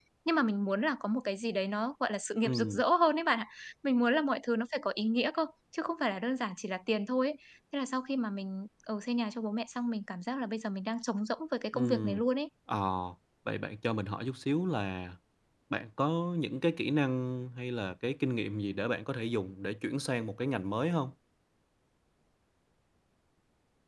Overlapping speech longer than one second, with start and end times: none

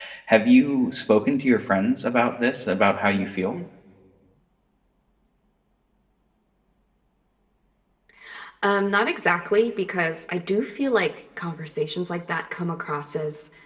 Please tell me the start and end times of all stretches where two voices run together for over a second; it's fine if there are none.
none

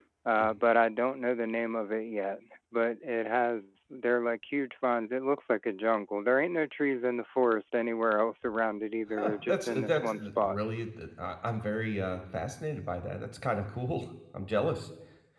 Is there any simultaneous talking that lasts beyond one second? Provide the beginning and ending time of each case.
9.2-10.6

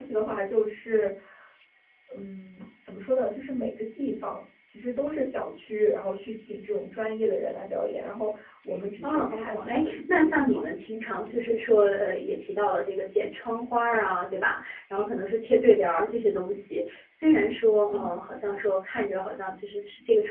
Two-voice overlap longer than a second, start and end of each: 9.0-10.6

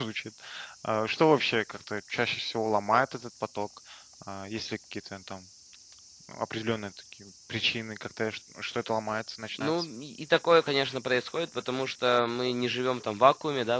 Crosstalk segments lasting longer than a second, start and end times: none

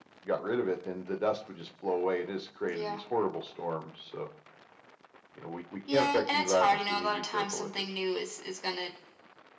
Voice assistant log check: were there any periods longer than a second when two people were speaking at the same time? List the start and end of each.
5.9-7.7

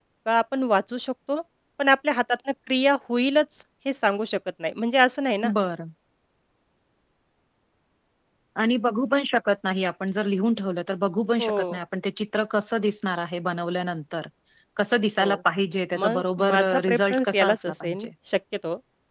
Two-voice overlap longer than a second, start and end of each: 16.0-18.1

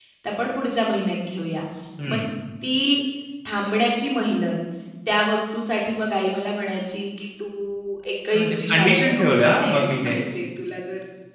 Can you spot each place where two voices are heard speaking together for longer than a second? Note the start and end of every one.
8.2-10.2

